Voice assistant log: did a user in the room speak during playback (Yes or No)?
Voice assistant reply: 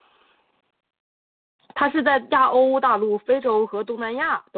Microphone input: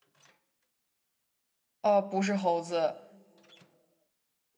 Yes